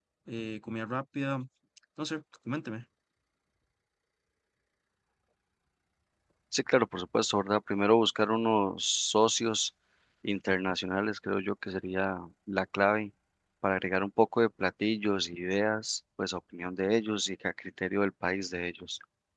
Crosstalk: none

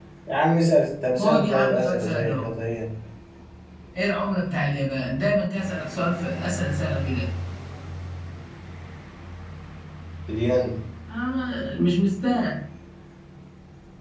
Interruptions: present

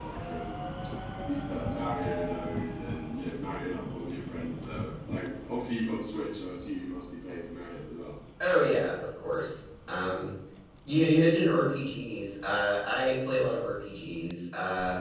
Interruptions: none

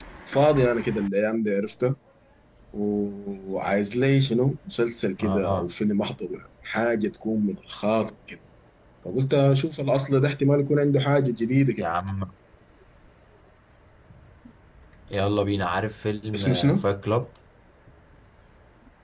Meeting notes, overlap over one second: none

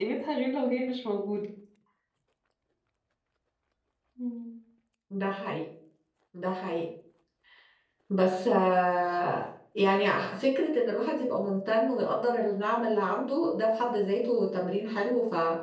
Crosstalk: none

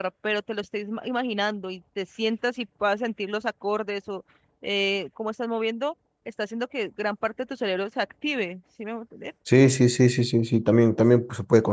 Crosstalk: none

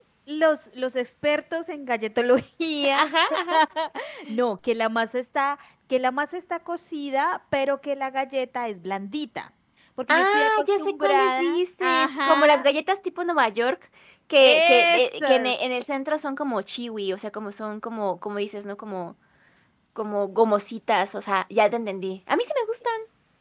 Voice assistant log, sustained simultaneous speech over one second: present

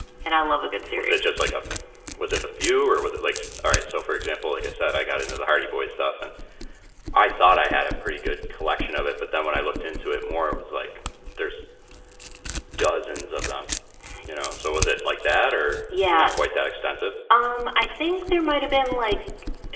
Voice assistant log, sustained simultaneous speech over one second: none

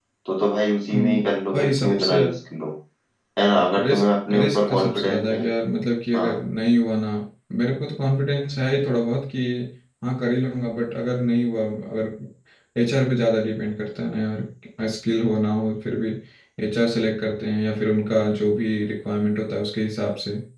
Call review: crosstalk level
present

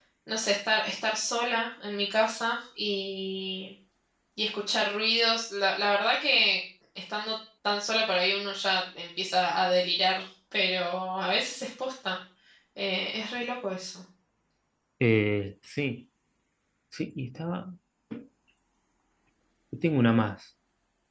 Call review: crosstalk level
none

